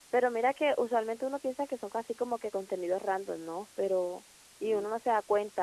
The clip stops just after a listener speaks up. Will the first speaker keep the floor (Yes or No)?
Yes